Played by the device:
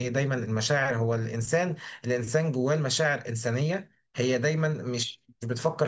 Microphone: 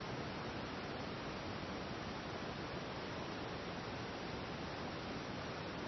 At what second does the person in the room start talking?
none

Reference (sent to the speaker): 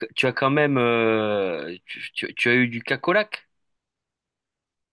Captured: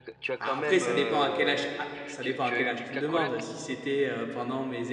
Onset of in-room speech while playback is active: 0 s

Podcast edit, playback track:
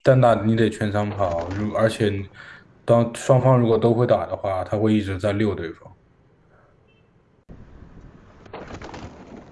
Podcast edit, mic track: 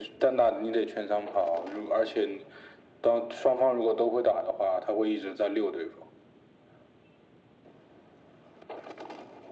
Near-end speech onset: none

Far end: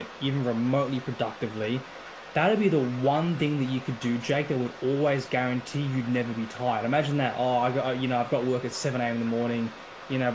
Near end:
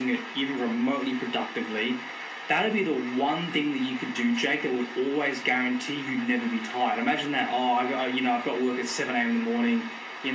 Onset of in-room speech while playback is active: none

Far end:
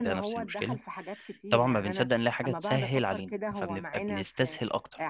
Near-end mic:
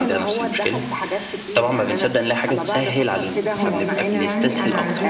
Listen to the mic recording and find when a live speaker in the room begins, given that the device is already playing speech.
3 s

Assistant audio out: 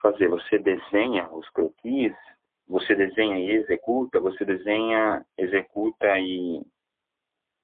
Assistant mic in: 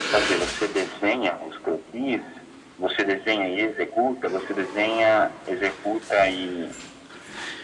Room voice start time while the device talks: none

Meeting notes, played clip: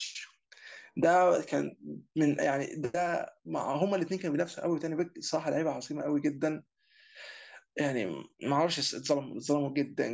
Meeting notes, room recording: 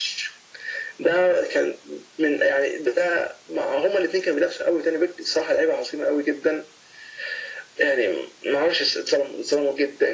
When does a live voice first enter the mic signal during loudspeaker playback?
none

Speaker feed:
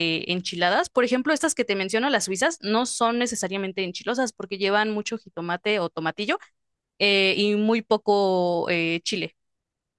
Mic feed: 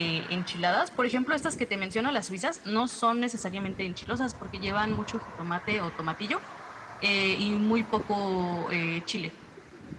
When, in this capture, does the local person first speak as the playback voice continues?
none

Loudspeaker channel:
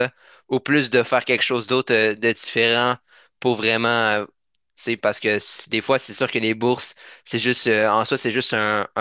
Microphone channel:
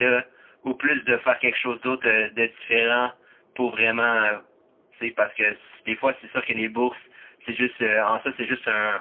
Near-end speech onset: none

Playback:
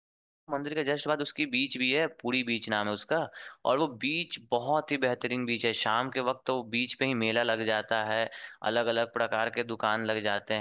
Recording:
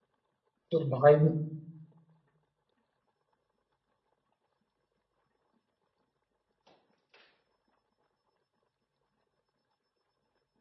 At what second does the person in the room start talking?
1 s

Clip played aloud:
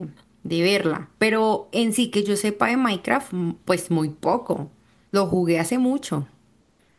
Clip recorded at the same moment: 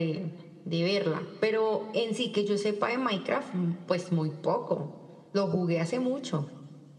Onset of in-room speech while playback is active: none

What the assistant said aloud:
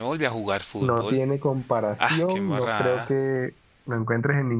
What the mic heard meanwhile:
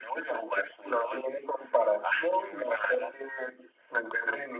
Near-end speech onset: none

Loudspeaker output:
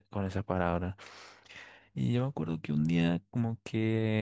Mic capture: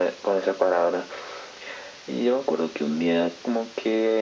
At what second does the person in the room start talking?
none

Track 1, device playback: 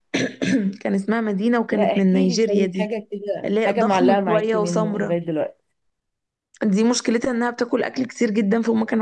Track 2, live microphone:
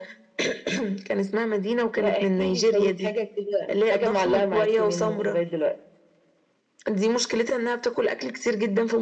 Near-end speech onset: none

